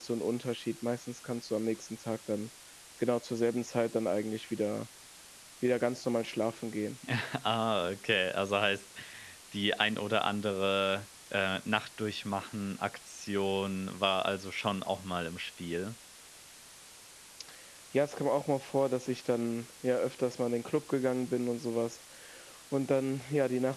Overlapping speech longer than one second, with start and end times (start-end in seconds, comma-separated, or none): none